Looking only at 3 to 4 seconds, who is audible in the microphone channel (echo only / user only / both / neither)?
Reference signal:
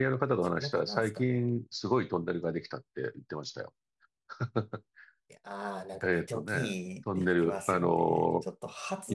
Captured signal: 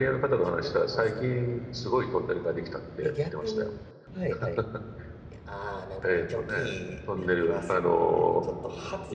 both